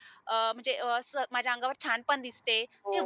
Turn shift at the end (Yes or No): Yes